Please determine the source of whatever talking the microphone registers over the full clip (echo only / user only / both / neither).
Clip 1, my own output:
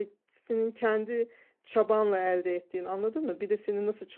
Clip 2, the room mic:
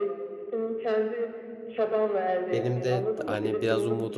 both